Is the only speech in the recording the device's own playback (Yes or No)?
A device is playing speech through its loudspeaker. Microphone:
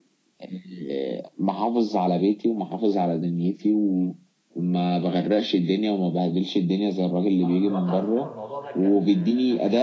No